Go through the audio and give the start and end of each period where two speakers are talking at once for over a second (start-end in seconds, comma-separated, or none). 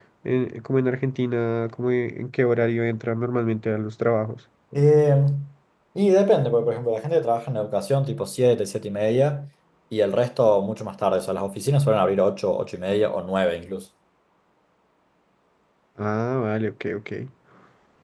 none